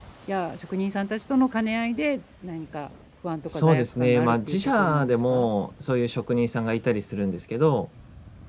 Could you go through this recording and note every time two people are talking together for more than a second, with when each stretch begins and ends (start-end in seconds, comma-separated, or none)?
3.5-5.5